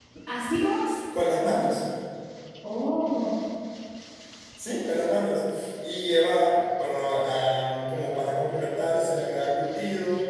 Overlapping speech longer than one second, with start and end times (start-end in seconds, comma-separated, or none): none